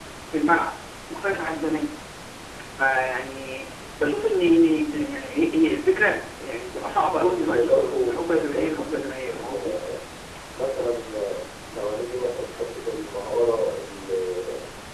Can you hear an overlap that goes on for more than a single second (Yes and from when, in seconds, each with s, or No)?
Yes, from 7.2 s